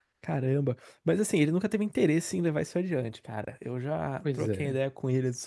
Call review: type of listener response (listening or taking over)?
listening